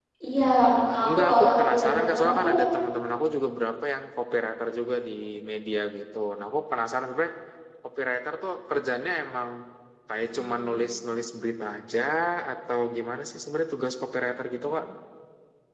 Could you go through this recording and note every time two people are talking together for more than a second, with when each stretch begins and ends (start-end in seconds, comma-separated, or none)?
1.0-2.6